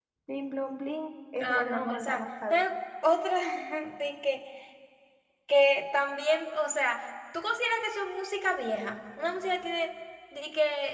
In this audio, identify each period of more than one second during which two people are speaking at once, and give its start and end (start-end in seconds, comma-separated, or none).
1.4-2.6